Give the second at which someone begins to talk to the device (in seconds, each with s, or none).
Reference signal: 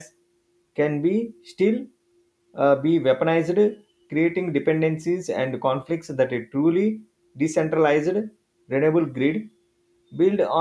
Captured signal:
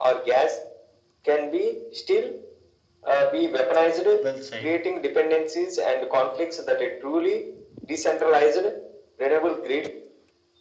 4.2 s